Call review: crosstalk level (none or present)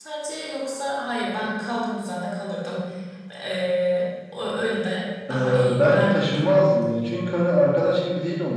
present